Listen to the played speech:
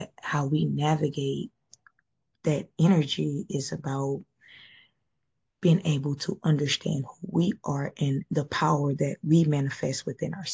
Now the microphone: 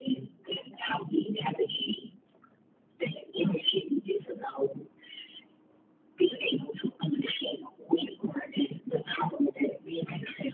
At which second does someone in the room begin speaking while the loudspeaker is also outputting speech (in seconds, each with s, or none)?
none